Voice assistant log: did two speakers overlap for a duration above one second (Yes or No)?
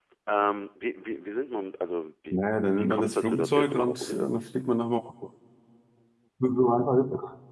Yes